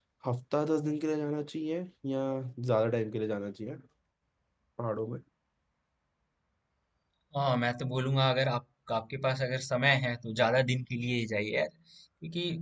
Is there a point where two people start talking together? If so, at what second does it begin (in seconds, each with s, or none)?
none